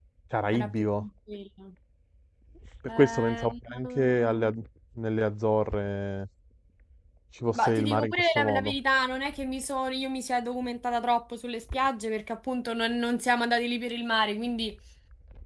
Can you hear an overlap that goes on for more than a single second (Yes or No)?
Yes